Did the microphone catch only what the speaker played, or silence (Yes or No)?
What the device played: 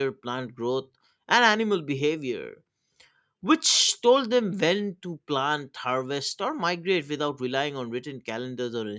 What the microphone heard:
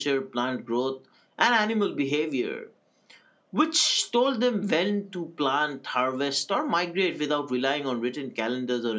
Yes